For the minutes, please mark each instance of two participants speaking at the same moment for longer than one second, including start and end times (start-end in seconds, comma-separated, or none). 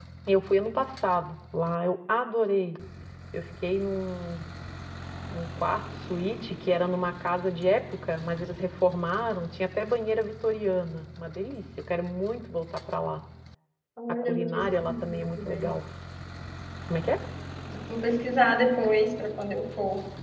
14.2-15.7